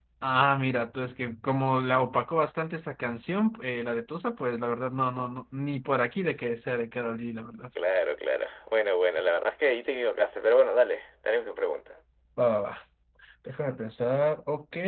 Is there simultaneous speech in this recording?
No

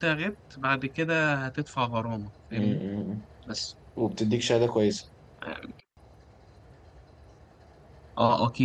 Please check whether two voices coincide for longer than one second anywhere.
No

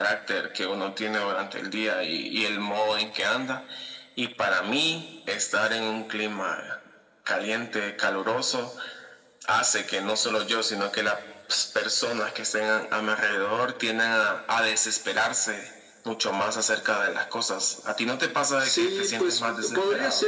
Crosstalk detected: Yes, from 18.6 s

